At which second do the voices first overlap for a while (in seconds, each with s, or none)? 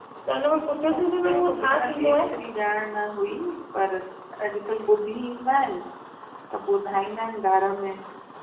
0.9 s